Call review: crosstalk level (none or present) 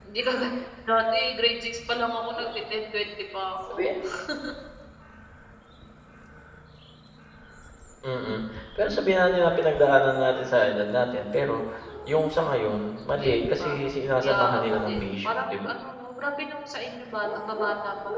present